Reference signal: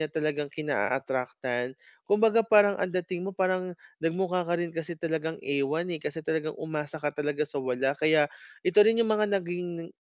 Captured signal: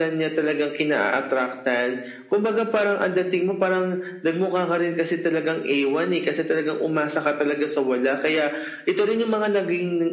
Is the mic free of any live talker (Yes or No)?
Yes